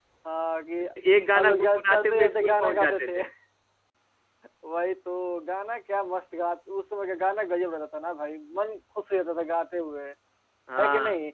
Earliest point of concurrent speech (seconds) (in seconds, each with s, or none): 1.3 s